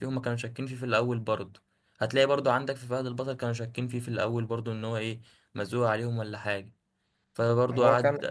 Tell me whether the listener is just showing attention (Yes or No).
No